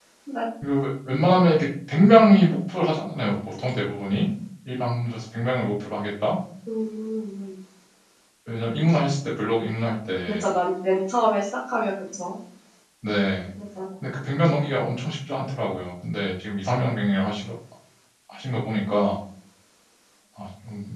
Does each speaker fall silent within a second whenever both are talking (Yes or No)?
Yes